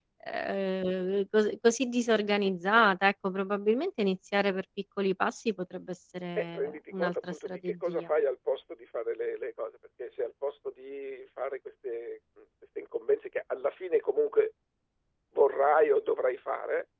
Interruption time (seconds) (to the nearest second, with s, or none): 6 s